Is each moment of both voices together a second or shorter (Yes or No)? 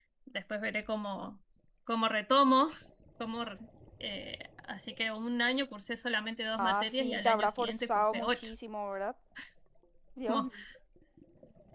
No